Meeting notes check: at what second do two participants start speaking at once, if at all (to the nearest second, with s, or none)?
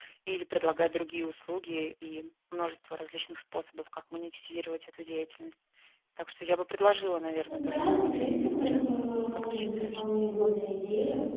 7 s